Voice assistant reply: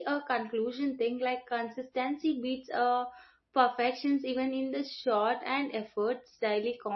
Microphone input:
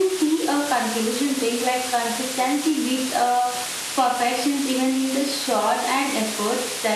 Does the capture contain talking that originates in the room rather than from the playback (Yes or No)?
No